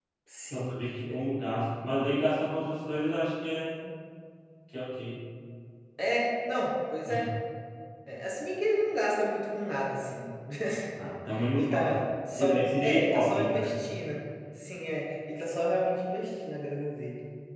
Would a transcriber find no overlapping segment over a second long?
No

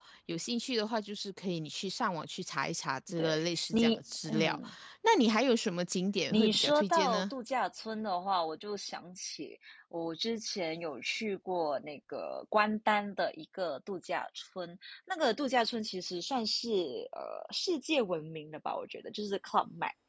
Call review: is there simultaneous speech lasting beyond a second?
Yes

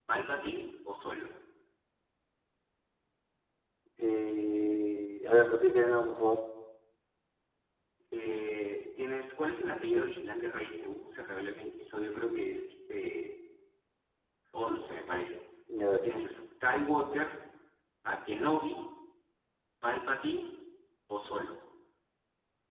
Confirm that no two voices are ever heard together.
Yes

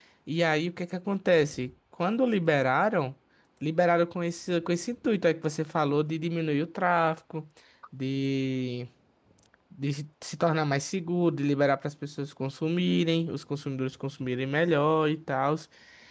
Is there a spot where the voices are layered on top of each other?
No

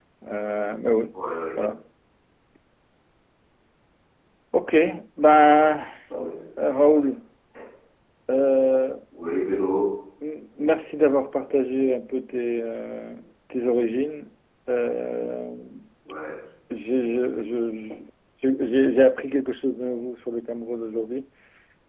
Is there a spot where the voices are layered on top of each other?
No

